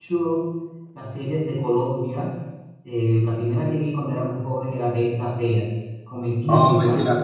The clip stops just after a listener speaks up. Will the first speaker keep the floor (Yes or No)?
No